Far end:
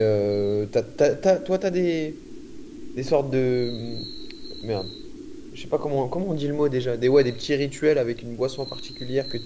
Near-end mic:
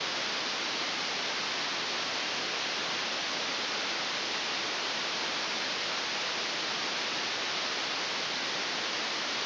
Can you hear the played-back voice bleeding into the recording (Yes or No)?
No